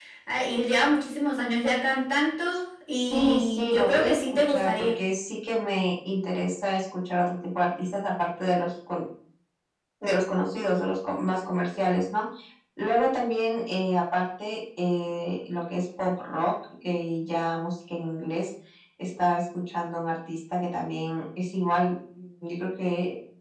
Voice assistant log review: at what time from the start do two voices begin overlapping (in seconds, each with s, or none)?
2.9 s